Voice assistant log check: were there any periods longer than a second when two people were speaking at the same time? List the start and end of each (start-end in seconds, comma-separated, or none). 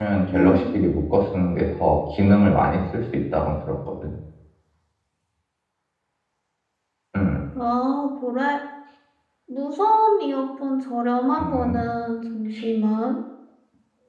none